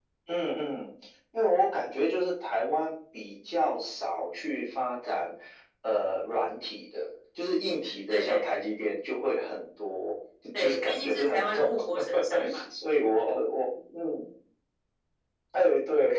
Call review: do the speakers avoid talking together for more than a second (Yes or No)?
No